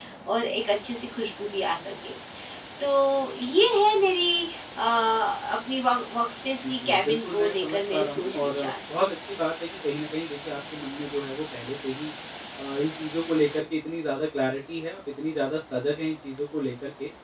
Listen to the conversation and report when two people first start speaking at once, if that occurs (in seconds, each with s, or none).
6.6 s